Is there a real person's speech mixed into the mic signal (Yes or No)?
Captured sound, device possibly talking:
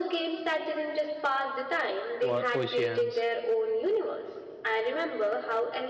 Yes